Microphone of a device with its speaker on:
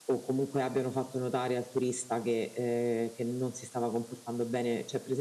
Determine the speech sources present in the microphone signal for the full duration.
echo only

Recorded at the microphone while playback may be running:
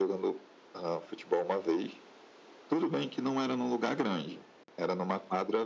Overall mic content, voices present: echo only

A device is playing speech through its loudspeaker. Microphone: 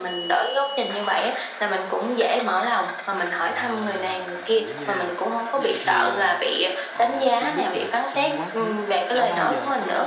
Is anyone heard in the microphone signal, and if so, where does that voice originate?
both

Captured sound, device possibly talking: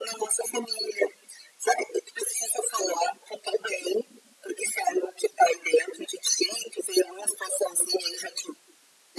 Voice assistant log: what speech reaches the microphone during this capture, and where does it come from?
echo only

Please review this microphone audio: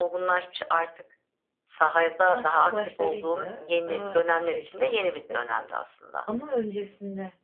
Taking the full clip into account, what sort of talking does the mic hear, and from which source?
both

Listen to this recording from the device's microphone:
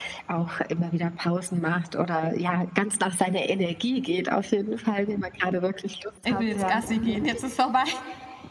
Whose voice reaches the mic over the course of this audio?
both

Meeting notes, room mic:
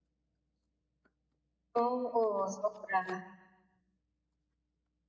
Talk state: user only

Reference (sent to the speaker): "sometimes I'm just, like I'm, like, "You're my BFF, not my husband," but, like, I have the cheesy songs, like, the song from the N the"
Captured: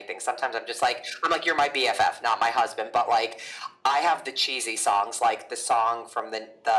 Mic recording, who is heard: echo only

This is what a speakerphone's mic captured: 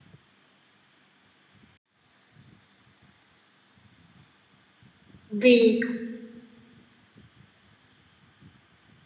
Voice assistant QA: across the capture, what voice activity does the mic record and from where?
user only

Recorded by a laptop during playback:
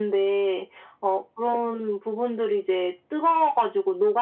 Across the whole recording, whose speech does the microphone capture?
echo only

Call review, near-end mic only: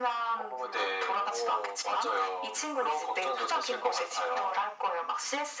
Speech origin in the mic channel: echo only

